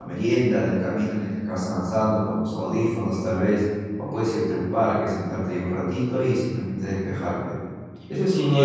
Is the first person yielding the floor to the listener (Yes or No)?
Yes